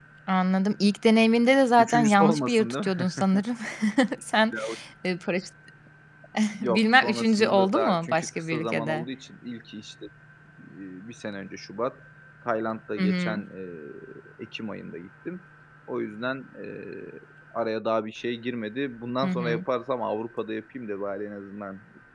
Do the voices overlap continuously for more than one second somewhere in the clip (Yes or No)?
Yes